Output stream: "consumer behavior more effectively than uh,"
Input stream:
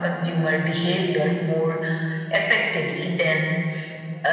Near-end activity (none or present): none